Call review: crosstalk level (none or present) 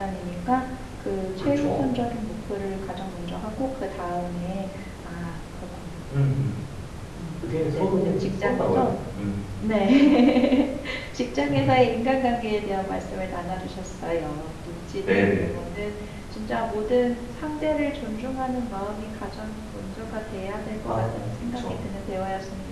present